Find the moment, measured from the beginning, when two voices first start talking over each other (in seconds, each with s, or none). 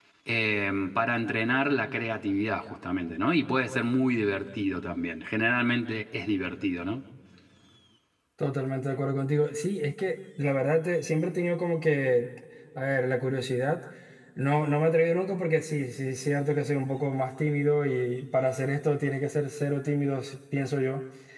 none